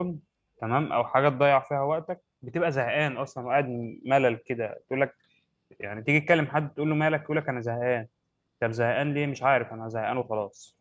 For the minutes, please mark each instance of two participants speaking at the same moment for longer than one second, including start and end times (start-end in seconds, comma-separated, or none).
none